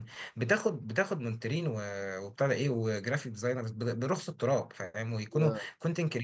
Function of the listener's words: listening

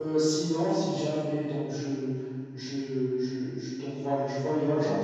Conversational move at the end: listening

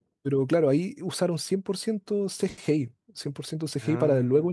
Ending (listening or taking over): listening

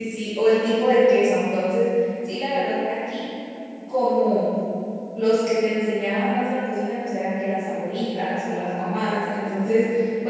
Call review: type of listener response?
listening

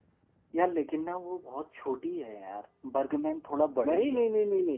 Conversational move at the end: taking over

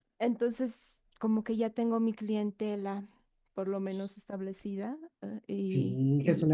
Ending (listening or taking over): taking over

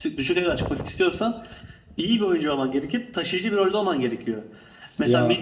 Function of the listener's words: listening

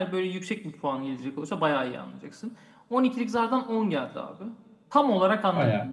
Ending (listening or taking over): listening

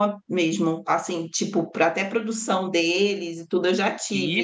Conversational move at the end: listening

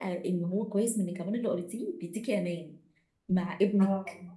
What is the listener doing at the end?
listening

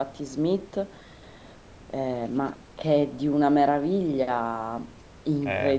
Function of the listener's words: listening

